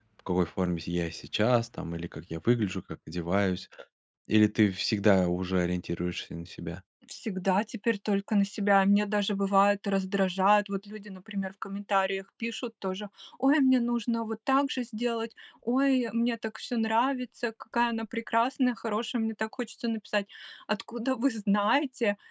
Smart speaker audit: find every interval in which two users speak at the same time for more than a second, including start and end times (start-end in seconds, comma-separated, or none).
none